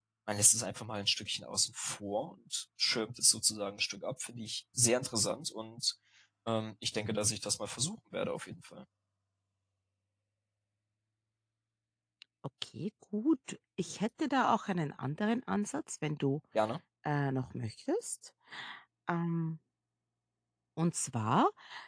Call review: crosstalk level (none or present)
none